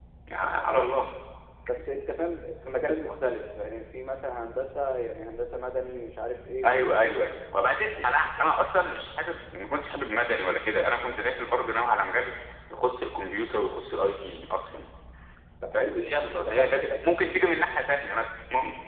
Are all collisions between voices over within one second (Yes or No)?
No